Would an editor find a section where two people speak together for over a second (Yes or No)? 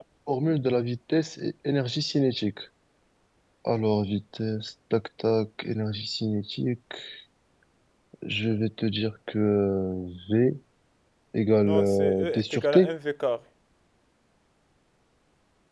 Yes